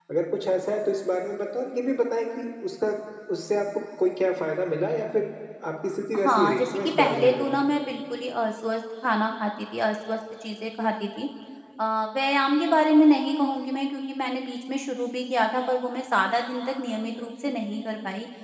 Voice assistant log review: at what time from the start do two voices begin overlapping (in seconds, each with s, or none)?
6.2 s